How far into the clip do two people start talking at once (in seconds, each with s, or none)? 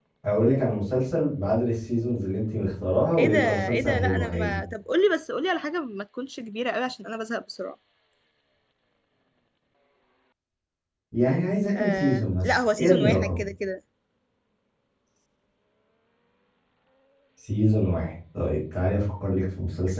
3.2 s